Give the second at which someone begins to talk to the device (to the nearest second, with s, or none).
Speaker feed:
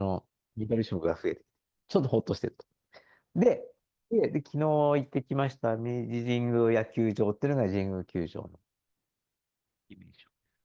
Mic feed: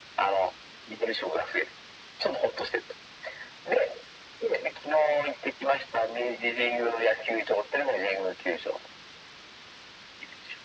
none